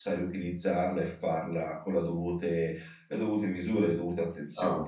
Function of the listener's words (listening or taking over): taking over